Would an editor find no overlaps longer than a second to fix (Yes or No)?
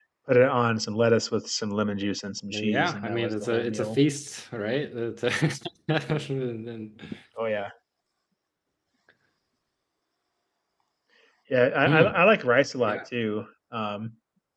No